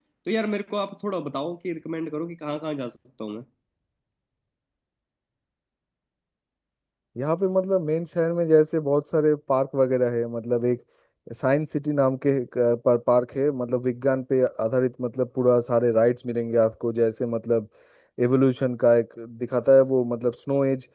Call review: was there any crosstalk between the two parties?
No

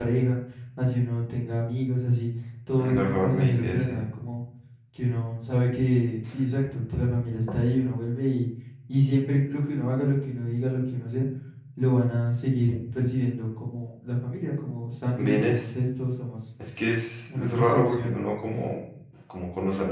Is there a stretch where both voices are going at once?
Yes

